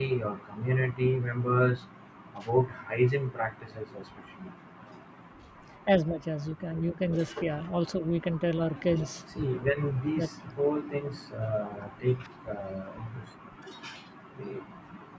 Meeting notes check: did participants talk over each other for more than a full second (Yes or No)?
No